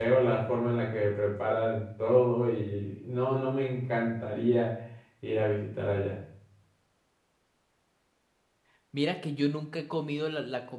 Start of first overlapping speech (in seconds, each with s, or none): none